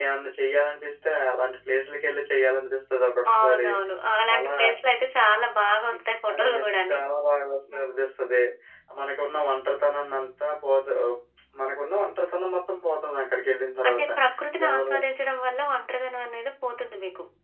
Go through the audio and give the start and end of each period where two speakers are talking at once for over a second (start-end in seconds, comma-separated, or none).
none